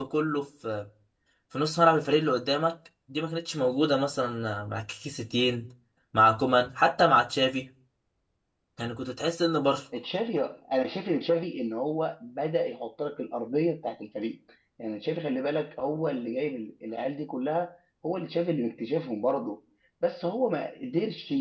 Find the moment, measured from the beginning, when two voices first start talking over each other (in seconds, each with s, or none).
none